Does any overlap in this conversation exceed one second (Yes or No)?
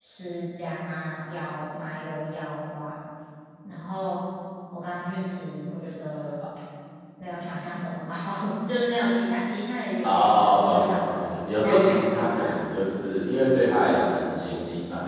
Yes